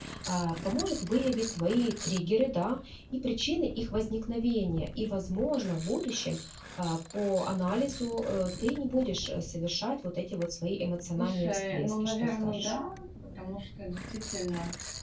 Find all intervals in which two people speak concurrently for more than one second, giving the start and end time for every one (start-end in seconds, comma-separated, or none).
11.2-12.7